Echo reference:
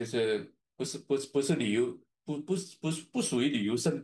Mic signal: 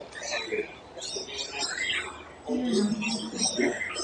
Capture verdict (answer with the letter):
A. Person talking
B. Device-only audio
A